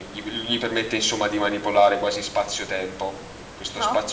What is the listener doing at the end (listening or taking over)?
listening